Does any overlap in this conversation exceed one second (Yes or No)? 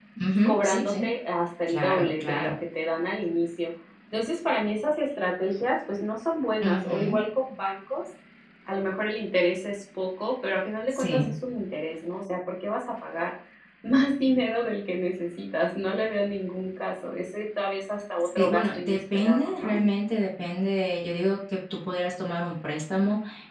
Yes